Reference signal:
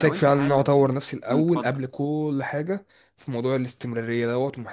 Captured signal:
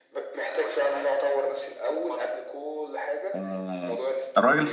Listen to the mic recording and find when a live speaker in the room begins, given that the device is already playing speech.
3.3 s

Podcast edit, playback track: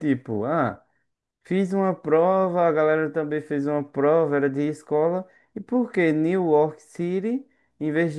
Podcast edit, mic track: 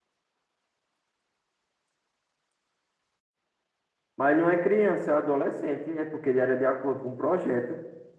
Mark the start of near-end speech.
4.2 s

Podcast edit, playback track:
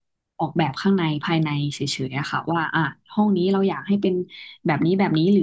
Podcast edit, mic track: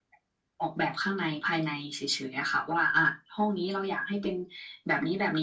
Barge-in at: none

